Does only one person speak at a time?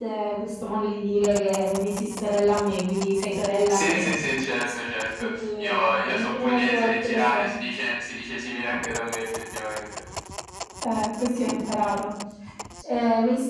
No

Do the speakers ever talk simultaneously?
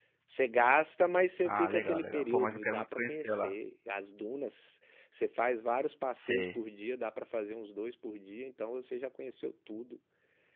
Yes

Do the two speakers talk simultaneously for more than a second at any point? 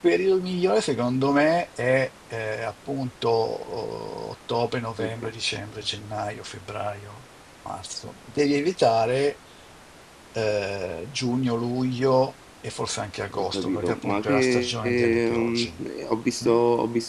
Yes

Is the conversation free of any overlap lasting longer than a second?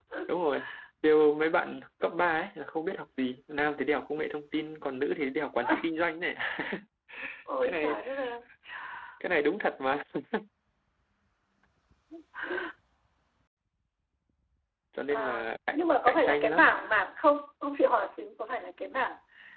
No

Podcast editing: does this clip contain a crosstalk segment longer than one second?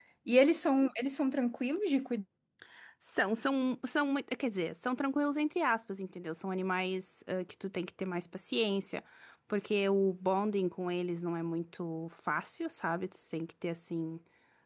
No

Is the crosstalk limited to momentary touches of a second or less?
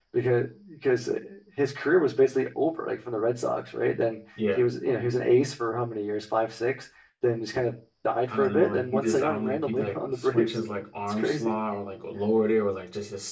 No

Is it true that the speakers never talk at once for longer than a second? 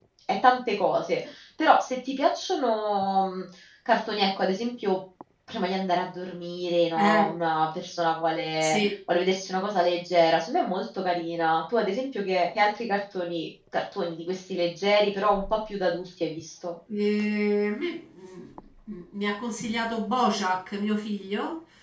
Yes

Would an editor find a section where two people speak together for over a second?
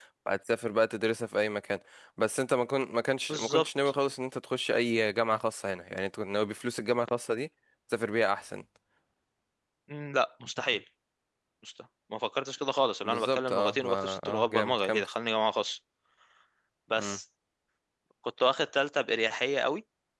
Yes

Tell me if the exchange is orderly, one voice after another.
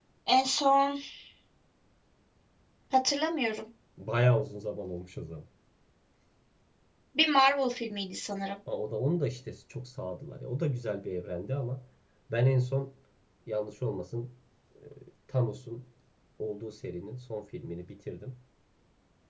Yes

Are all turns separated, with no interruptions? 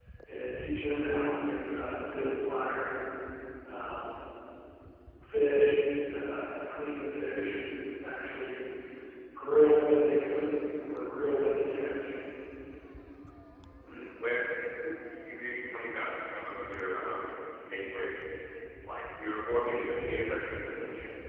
Yes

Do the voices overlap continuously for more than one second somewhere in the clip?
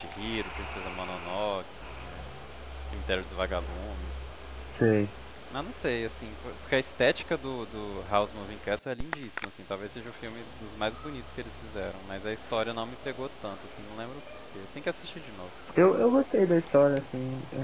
No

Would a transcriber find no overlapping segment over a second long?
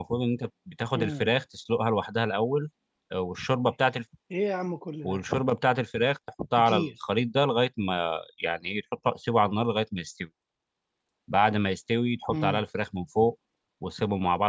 Yes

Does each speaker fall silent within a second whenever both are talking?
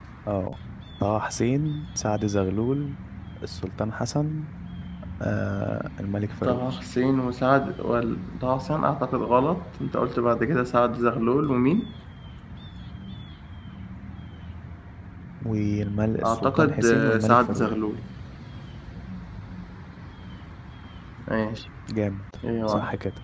No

